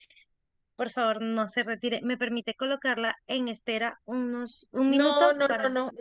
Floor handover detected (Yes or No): Yes